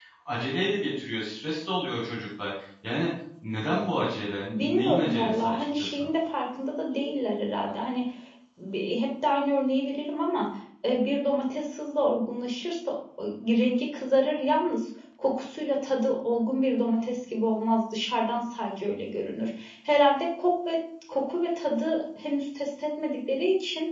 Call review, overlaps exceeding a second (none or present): present